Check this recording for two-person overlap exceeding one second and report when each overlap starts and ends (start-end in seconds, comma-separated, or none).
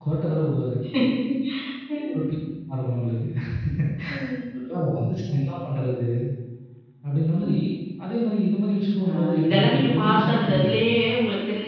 9.1-10.8